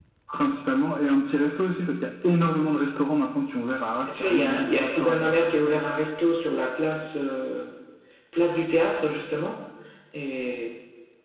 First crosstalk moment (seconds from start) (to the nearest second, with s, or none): 4 s